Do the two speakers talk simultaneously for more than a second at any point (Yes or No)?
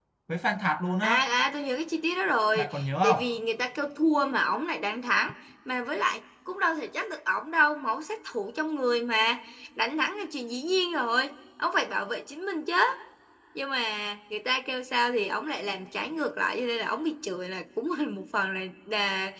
No